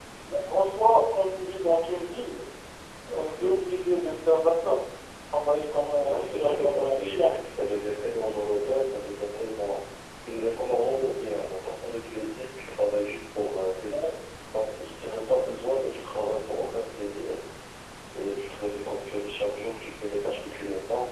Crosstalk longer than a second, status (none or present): present